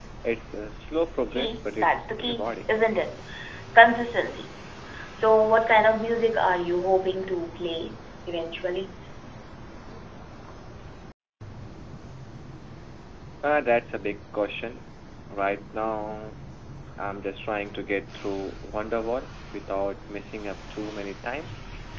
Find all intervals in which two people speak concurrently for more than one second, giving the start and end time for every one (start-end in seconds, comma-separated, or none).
1.3-2.7